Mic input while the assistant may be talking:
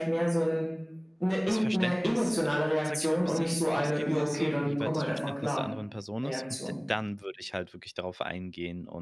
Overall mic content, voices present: both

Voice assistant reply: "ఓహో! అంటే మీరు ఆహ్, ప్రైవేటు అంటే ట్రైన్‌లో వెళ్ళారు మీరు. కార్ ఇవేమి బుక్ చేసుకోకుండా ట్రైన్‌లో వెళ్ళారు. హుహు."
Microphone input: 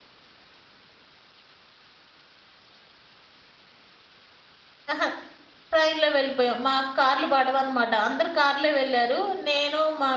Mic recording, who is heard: user only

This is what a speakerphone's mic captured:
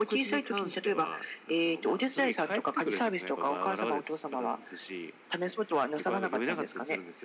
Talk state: echo only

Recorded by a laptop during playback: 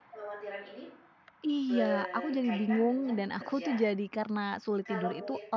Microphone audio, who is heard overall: both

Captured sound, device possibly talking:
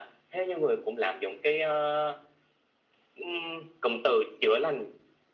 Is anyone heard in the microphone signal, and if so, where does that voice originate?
echo only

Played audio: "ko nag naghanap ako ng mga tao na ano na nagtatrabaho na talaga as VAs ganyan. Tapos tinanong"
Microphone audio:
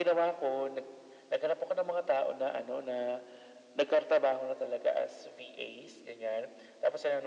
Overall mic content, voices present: echo only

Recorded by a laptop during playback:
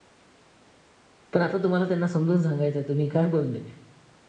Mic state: user only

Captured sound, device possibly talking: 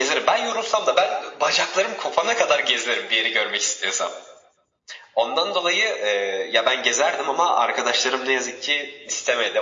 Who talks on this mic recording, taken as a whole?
echo only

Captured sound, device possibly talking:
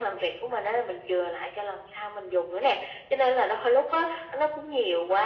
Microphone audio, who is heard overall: echo only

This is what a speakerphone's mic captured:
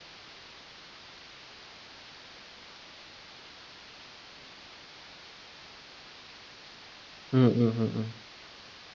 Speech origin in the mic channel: user only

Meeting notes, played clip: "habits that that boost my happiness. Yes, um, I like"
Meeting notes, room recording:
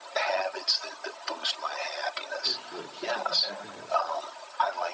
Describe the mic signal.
both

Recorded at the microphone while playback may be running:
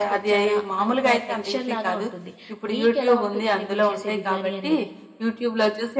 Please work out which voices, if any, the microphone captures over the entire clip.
echo only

